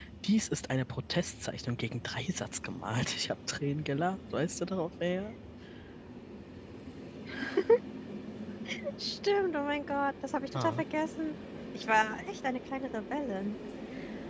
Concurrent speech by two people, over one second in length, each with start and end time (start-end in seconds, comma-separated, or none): none